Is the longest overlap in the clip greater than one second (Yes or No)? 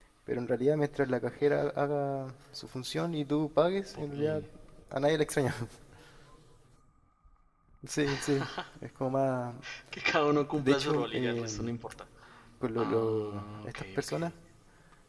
Yes